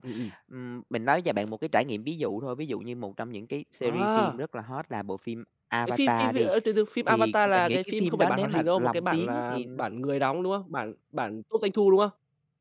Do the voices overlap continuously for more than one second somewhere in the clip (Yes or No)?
Yes